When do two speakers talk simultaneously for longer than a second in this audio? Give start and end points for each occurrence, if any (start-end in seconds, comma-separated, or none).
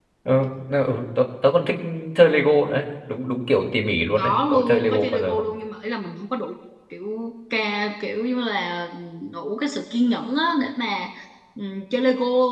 4.2-5.4